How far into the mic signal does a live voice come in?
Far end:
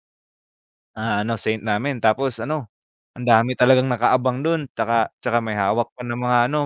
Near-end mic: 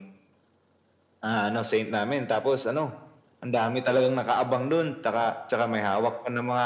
none

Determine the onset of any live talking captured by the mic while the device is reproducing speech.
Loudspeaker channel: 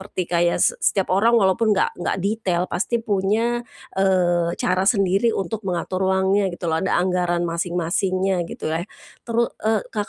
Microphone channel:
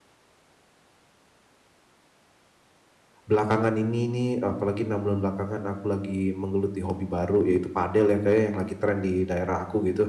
3.2 s

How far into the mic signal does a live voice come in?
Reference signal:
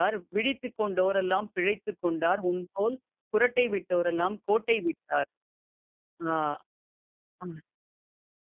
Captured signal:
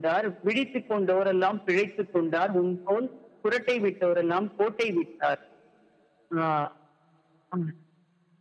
none

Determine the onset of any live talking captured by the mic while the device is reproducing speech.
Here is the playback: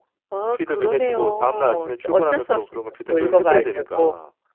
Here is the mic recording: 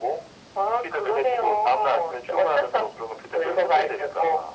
none

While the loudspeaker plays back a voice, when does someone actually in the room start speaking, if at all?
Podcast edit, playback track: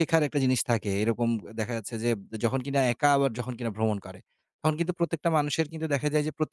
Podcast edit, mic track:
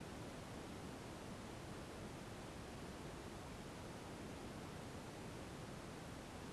none

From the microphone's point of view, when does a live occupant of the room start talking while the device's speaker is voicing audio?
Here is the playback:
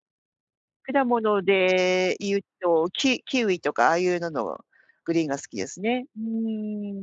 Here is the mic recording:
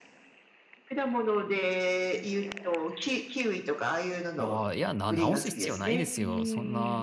4.3 s

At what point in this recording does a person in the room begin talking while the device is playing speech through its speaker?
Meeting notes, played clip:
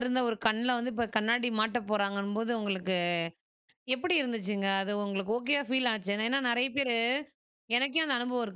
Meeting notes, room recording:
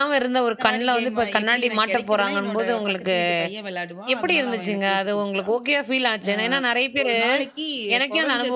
0.5 s

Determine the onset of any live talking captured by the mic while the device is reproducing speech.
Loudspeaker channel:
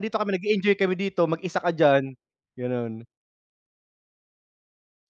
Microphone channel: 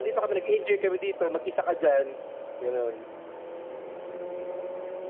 none

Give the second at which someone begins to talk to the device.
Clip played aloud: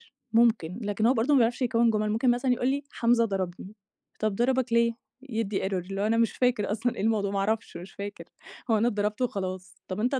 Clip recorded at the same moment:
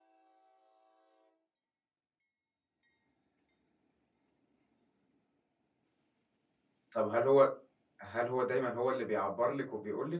6.9 s

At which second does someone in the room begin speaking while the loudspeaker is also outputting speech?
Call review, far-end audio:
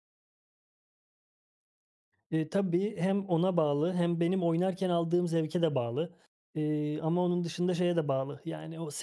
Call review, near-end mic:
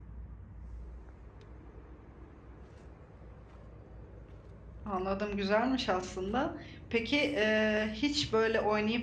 4.8 s

